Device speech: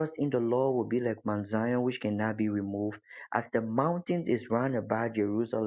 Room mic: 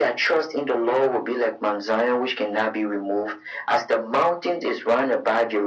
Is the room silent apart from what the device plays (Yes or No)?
Yes